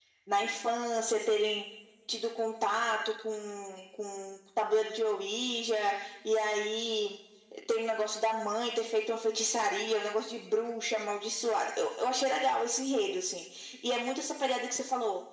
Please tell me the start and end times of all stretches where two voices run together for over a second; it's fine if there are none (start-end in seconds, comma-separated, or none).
none